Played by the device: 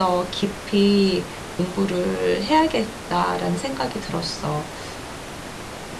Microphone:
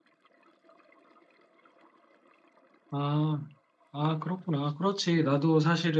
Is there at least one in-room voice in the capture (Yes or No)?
Yes